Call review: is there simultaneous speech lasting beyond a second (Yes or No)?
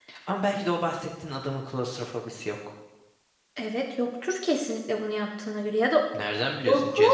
No